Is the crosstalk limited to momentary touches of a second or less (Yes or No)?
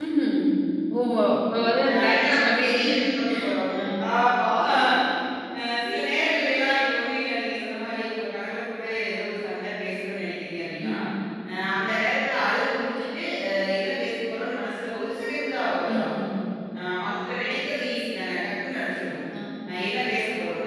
No